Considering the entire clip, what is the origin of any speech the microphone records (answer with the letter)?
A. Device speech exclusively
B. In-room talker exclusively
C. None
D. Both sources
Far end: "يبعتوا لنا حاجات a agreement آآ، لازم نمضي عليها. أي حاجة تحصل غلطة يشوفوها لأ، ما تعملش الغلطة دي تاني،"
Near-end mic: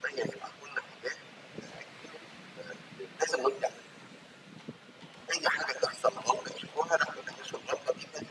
A